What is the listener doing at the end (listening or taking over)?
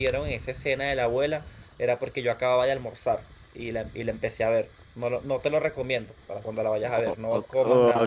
taking over